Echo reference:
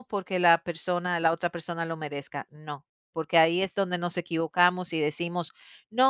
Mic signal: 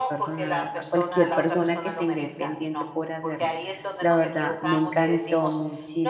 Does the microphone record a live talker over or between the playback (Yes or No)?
Yes